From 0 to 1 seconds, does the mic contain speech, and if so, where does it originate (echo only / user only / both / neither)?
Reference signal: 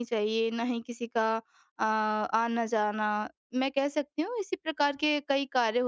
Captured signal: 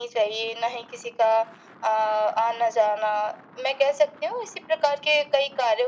echo only